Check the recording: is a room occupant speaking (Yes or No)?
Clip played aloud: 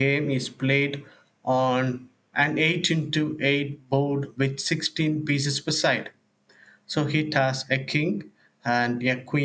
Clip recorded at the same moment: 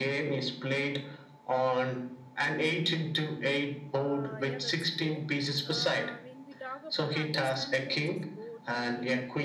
Yes